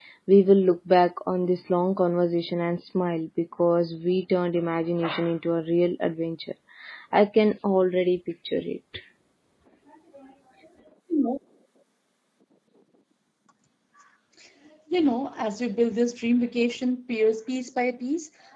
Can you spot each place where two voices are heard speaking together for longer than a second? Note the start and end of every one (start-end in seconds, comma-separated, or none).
none